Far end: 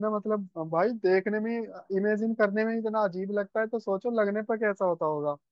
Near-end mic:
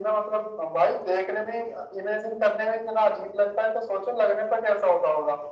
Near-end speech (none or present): none